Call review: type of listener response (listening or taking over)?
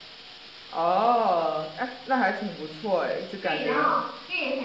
taking over